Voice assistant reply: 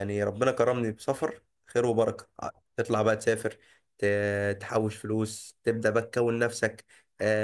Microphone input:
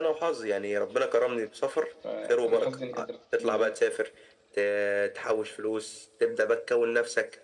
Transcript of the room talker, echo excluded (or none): فانا حظي ان كانت دراستي بالانجليزي